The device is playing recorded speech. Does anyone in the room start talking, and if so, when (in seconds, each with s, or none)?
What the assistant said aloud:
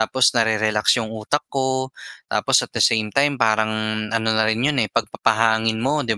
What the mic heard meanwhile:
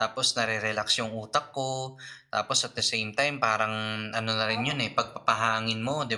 4.5 s